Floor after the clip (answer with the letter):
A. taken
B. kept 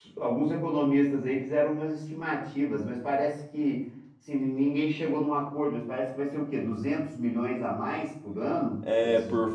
A